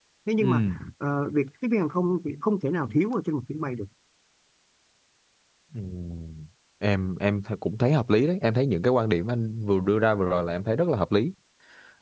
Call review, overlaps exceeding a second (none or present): none